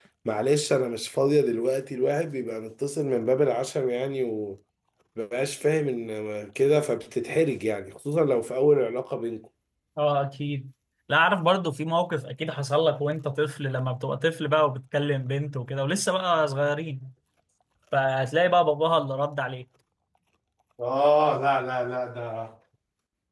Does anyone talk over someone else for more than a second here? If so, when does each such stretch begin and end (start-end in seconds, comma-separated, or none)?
none